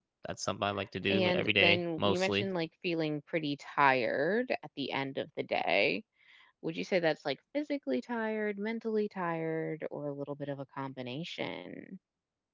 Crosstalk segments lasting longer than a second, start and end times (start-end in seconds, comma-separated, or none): 1.1-2.5